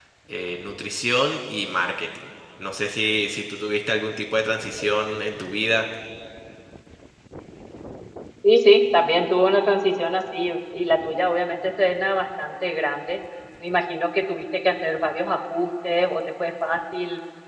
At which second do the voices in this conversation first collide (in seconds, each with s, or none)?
none